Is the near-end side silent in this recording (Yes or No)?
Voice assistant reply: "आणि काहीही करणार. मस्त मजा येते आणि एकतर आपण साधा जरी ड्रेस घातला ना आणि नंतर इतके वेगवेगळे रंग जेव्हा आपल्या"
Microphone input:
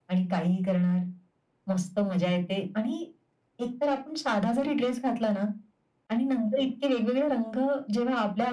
Yes